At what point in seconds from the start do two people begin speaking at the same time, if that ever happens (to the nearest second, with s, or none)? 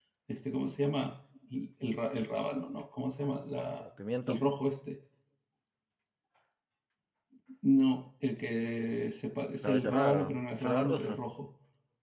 10 s